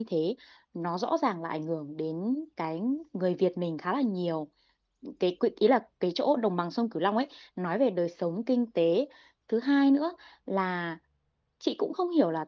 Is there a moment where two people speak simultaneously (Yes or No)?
No